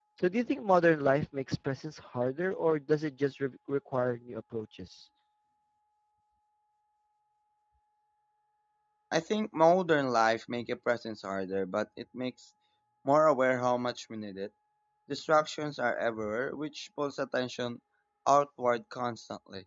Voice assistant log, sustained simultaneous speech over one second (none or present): none